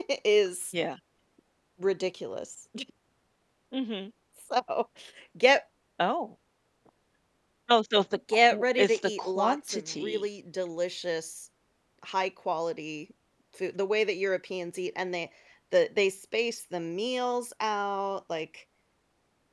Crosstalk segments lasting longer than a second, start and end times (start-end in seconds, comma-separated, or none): 8.3-10.2